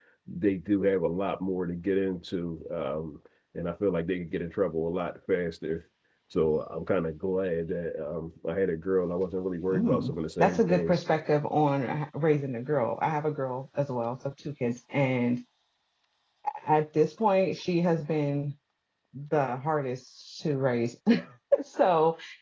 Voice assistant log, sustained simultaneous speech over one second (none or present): present